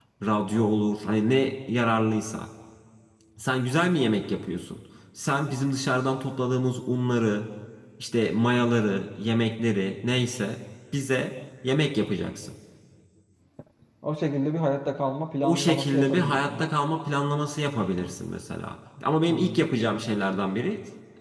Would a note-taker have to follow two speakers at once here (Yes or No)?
Yes